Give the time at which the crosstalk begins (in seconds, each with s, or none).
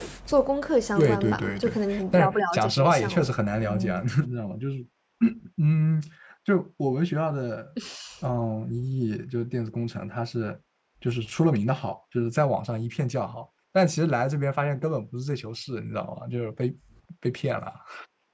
1.0 s